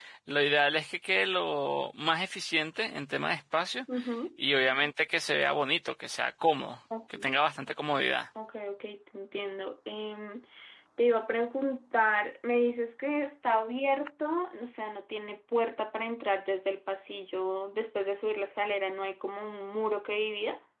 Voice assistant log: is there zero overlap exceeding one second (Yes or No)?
Yes